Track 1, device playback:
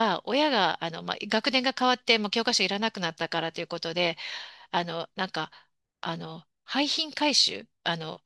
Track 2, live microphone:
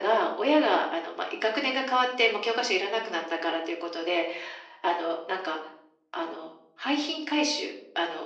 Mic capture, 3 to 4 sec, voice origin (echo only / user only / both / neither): echo only